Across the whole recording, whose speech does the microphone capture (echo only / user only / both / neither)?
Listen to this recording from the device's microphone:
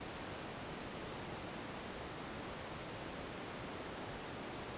neither